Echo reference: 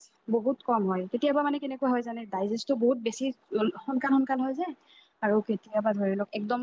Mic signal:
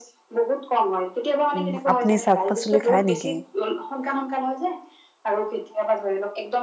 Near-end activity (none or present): present